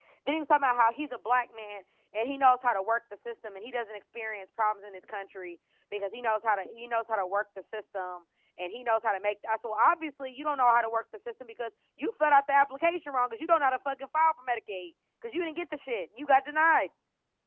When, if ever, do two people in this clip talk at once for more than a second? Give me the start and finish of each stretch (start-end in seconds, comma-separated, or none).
none